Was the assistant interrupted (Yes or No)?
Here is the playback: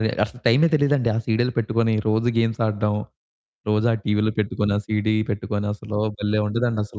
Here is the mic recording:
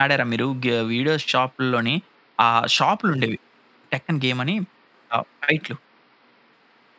Yes